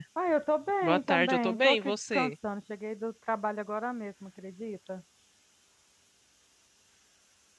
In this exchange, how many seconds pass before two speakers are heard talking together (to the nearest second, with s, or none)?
1 s